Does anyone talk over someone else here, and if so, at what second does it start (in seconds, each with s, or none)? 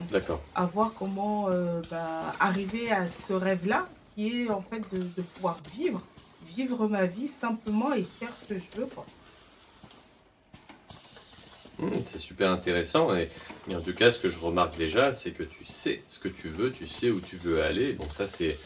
none